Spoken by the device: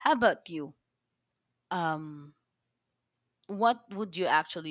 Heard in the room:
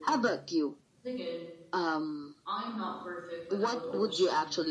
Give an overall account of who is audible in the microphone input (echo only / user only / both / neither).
both